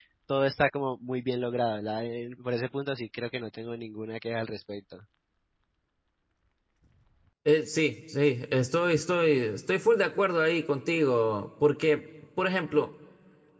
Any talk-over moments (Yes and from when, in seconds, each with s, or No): No